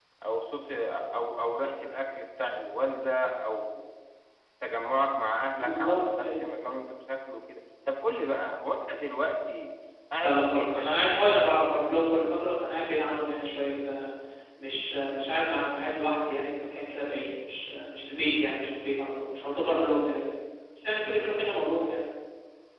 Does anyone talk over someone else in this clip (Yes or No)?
Yes